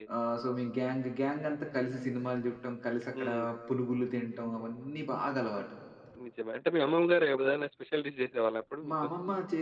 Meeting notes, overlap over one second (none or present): none